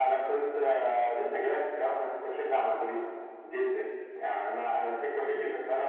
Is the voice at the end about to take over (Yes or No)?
No